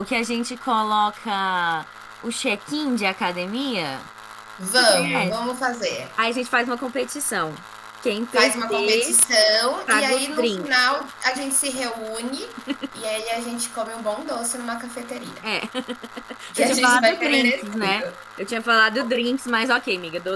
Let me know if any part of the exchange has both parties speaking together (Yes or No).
Yes